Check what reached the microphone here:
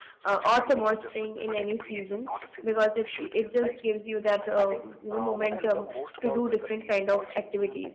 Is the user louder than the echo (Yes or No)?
Yes